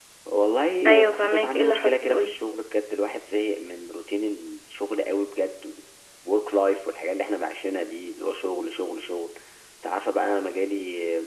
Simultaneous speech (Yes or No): Yes